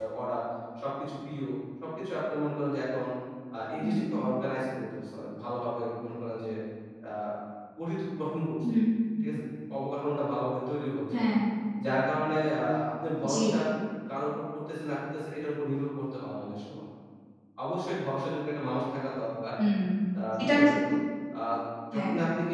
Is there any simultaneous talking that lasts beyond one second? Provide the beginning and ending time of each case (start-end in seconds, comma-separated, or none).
none